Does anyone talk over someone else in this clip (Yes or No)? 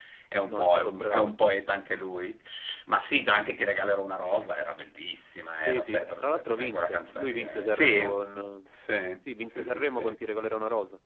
Yes